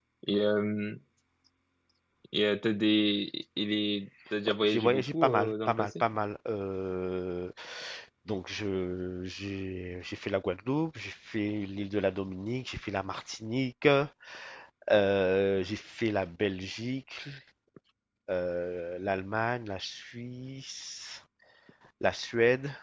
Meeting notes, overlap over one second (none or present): present